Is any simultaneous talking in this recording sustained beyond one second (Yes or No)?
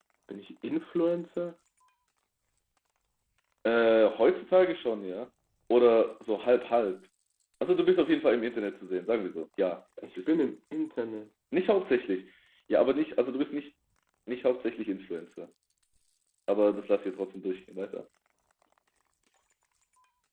No